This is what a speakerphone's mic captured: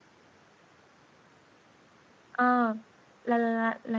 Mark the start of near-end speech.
2.3 s

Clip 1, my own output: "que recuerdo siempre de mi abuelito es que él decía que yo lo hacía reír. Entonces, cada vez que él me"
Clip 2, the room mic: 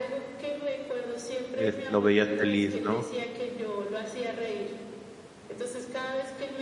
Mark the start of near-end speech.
1.6 s

